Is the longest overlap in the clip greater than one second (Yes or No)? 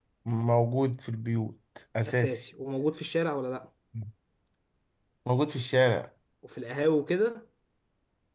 No